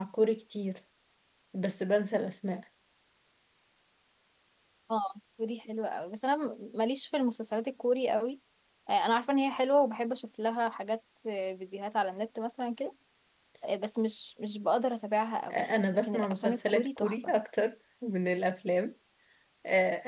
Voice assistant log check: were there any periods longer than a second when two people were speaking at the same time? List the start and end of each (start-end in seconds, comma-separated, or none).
16.0-17.3